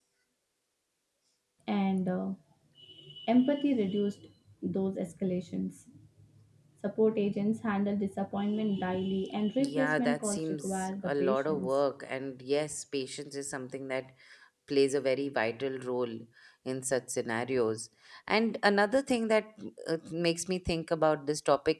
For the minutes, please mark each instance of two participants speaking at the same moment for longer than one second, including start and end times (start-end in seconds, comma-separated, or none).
9.6-11.7